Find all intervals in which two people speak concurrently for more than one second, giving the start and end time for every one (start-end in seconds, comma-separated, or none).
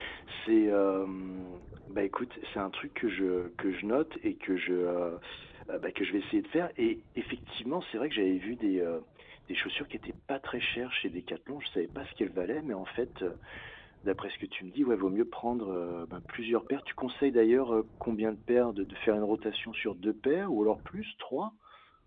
none